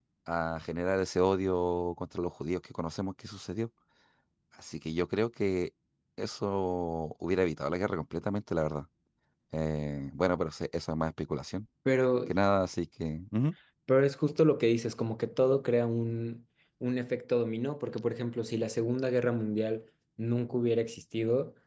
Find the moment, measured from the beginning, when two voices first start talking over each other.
none

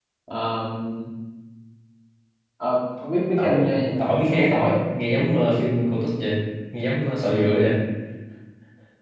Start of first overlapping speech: 3.4 s

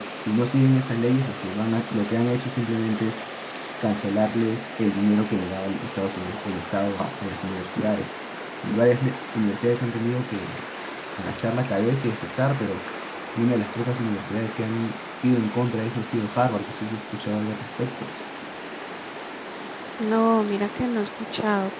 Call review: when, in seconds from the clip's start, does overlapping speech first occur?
none

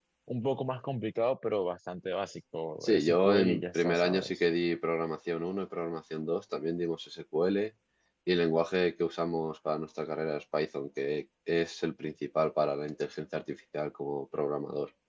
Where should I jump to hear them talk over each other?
2.8 s

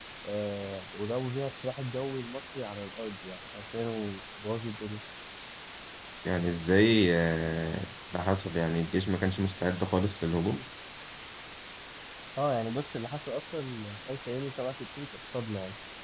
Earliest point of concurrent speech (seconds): none

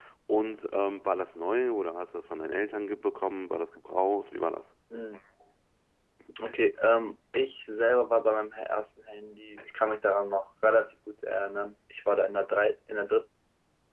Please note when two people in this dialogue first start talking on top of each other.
none

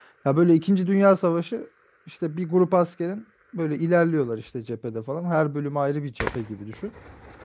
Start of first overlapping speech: none

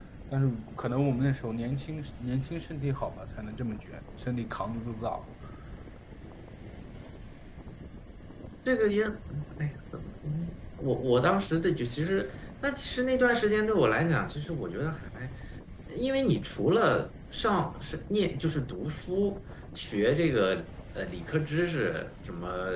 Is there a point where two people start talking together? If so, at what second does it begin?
none

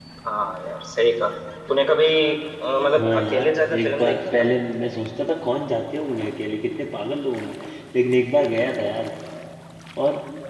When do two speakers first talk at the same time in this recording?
3.0 s

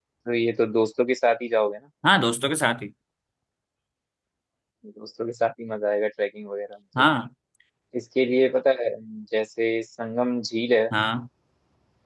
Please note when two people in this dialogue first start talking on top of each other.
none

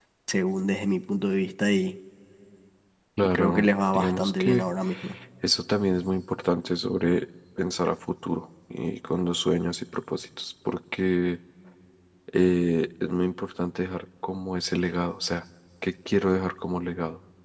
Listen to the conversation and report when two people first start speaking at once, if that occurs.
3.3 s

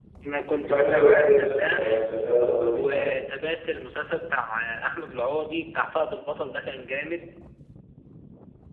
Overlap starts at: 0.6 s

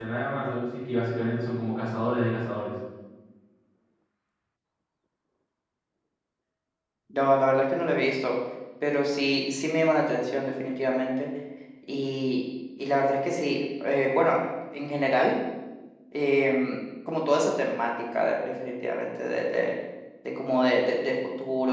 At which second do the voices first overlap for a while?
none

